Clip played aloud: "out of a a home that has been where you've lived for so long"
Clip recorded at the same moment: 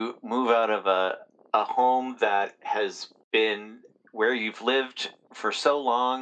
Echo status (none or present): present